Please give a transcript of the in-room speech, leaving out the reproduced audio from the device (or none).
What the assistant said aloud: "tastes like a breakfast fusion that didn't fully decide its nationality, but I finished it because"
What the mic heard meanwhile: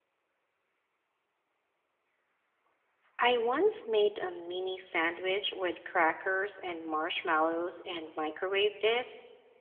I once made a mini sandwich with crackers and marshmallows and microwaved it.